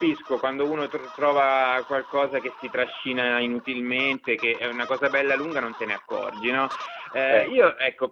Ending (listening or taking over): listening